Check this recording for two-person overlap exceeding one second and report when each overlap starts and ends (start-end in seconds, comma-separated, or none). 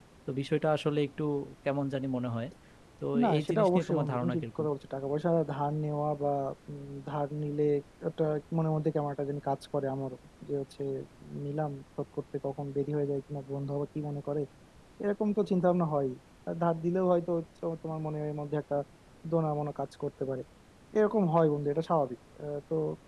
3.2-4.7